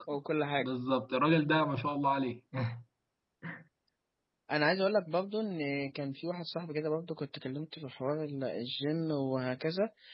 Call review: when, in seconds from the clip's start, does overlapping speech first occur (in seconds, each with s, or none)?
none